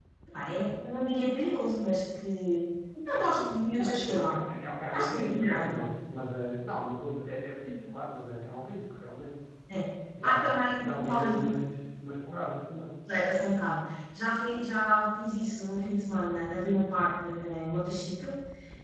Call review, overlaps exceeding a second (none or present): present